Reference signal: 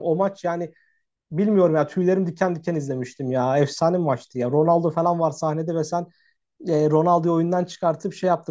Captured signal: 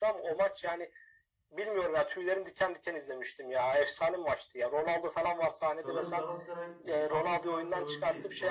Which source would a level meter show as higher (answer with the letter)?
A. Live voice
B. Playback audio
B